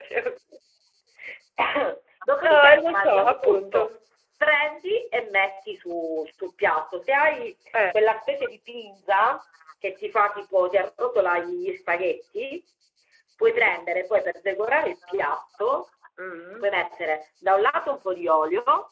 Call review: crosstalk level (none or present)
present